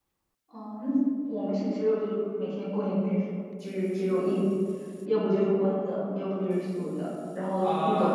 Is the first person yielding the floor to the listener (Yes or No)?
Yes